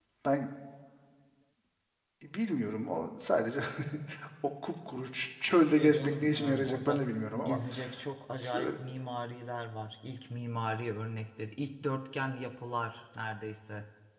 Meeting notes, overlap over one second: present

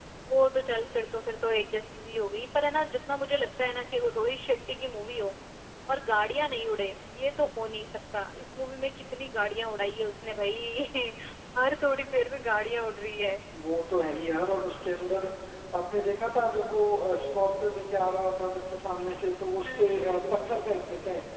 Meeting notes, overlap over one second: none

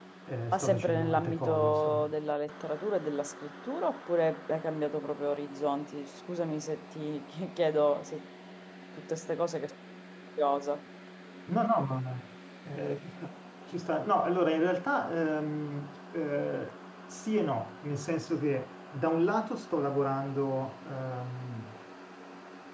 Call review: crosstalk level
present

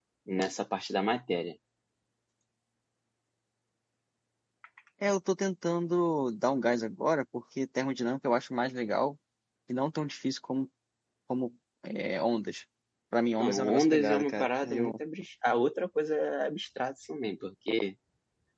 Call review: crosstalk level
present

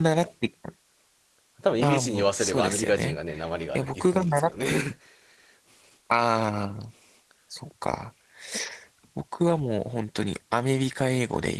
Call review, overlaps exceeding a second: present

